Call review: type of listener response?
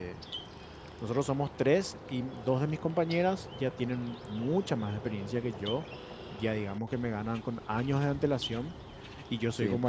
listening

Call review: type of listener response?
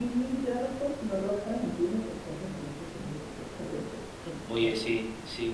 taking over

